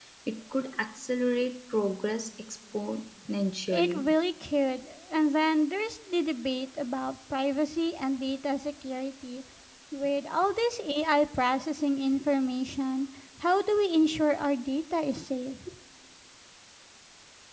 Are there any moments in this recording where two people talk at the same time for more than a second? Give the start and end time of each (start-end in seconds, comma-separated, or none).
none